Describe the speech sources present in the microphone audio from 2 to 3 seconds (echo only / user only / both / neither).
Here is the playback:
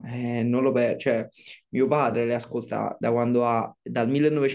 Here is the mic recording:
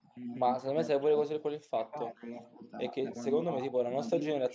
both